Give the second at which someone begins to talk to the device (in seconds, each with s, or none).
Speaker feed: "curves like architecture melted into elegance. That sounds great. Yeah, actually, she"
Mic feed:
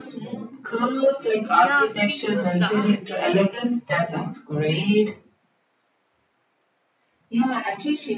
1.5 s